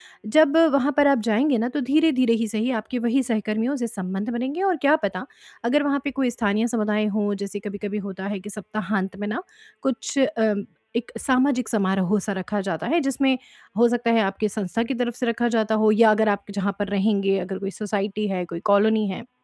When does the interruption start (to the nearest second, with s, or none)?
none